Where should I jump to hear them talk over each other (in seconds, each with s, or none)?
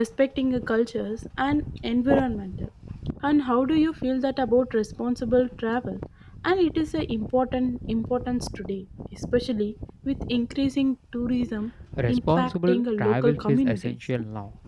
12.1 s